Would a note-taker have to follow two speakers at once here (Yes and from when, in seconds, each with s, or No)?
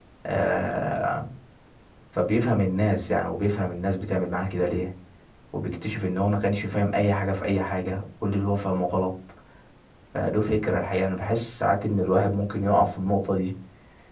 No